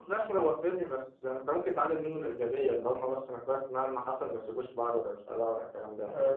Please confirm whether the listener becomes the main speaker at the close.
Yes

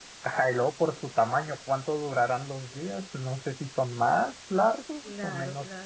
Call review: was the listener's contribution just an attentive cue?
Yes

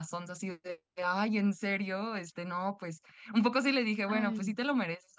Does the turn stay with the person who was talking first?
Yes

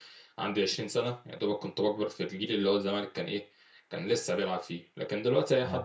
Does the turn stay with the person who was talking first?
Yes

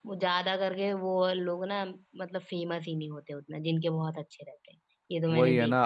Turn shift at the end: Yes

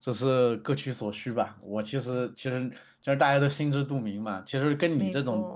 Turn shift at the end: No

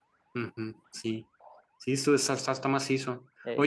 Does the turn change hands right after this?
No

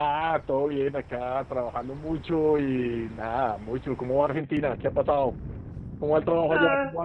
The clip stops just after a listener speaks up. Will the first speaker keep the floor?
No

